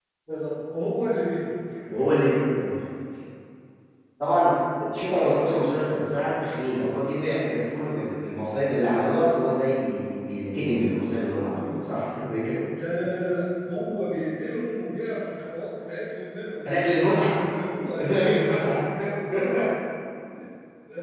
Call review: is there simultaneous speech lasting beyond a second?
No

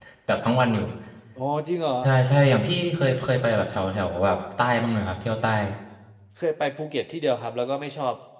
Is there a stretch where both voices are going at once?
No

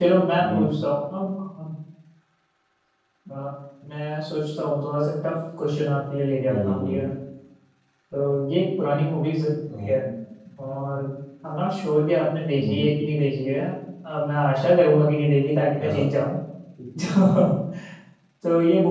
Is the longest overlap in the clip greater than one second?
No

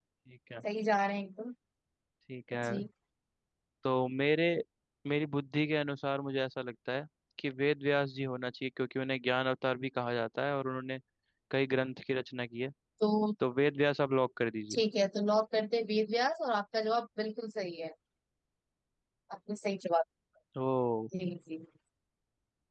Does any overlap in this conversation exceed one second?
No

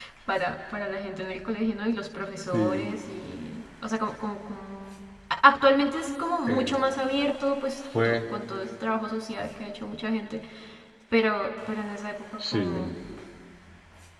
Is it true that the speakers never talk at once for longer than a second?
Yes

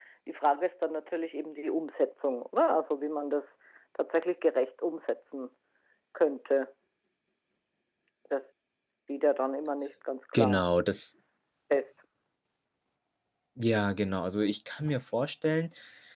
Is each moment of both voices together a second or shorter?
Yes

